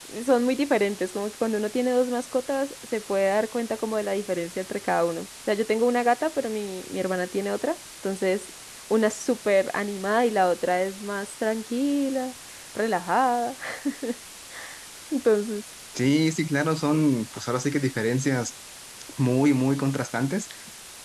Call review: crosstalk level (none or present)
none